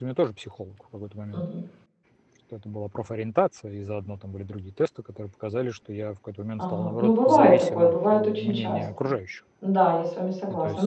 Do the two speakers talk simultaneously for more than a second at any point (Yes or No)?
Yes